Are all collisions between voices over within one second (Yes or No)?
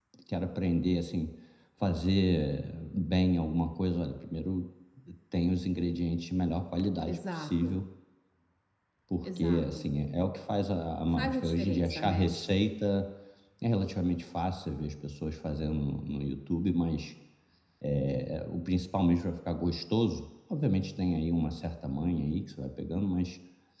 No